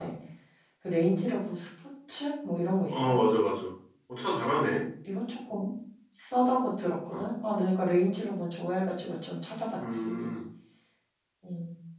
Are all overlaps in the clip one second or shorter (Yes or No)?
Yes